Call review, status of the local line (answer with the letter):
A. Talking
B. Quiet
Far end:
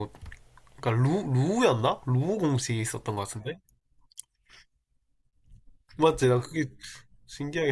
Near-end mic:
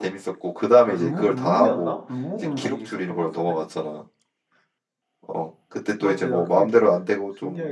A